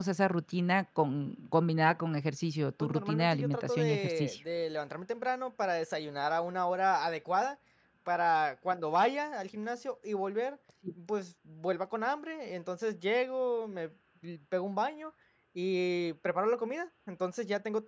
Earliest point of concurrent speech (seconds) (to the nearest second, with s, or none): 3 s